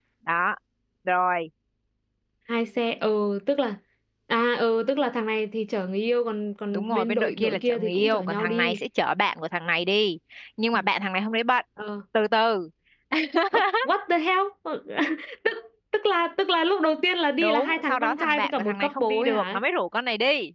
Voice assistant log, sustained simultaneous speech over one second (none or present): present